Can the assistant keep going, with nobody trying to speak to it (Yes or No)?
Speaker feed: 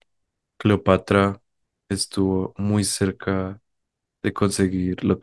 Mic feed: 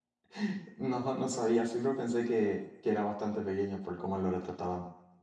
No